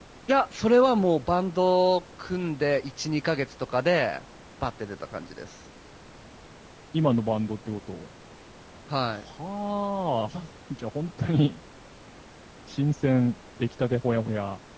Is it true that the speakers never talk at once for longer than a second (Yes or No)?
Yes